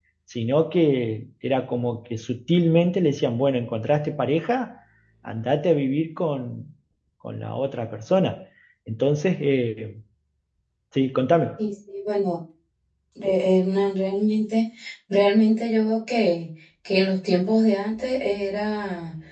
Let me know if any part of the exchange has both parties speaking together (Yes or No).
No